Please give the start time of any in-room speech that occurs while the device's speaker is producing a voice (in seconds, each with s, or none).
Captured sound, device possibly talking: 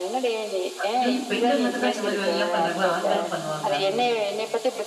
0.7 s